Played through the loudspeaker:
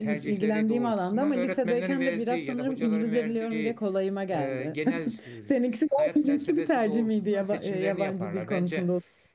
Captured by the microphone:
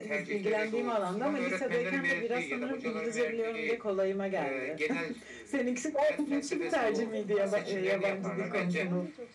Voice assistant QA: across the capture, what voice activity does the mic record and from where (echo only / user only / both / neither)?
both